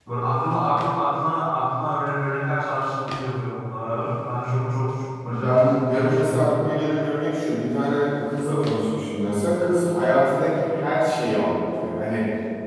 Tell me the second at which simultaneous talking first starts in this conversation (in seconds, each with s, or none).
5.2 s